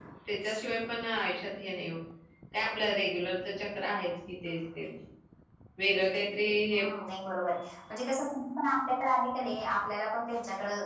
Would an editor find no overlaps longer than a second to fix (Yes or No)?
Yes